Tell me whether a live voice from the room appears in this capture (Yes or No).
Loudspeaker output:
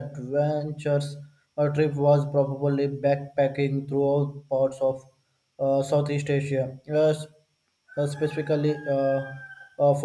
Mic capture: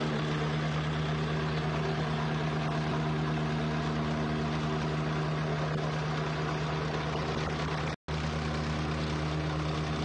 No